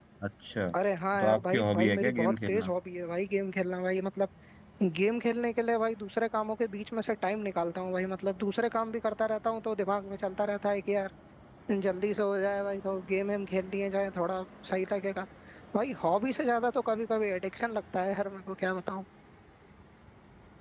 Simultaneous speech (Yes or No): Yes